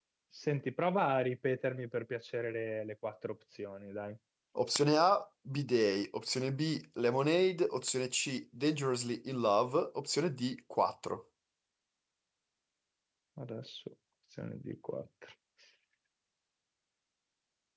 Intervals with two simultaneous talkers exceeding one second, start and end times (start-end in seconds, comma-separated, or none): none